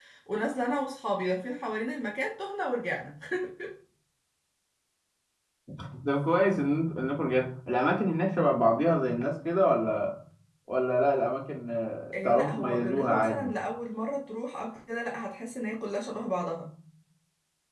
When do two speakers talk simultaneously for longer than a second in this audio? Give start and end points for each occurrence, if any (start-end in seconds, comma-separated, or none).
12.1-13.5